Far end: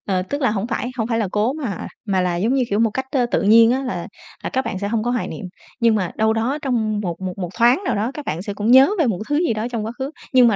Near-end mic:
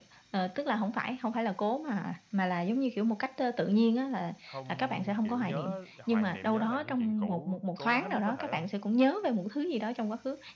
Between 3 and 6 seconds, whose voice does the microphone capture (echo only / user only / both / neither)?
both